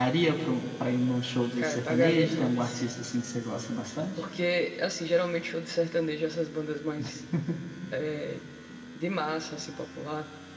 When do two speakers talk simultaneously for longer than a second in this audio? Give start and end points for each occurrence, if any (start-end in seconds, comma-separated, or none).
1.6-2.8